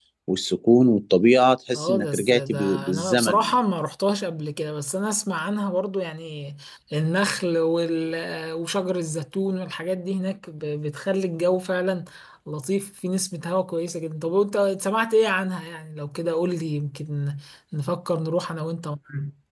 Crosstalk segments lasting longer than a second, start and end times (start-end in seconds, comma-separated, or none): 1.7-3.5